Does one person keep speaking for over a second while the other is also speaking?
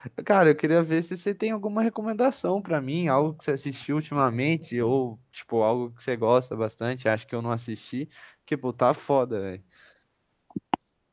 No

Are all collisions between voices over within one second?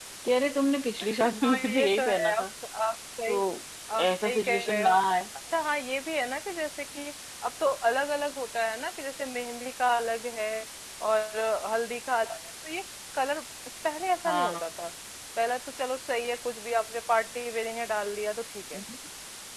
No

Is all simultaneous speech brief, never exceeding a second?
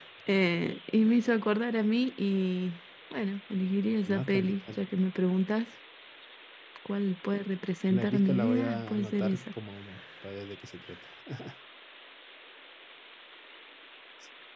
No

